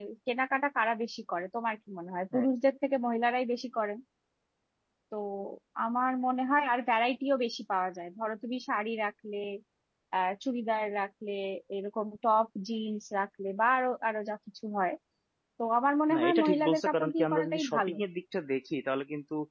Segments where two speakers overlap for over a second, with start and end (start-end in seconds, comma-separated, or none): 16.1-17.9